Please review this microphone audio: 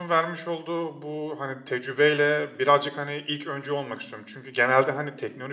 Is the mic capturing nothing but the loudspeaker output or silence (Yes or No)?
No